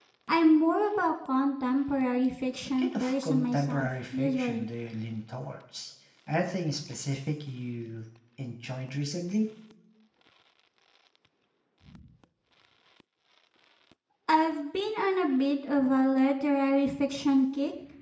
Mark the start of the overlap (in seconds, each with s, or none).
2.8 s